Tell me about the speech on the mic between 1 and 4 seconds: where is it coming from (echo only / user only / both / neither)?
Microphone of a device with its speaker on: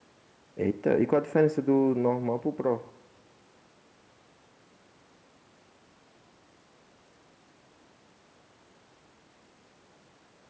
user only